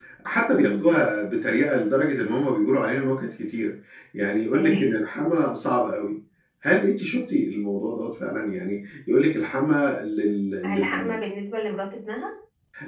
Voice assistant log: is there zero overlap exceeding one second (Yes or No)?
Yes